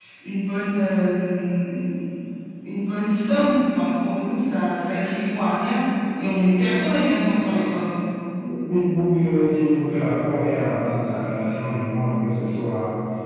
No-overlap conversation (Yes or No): Yes